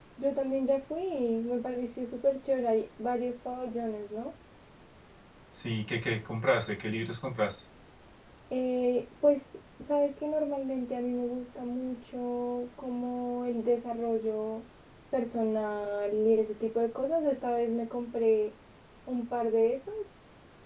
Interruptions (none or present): none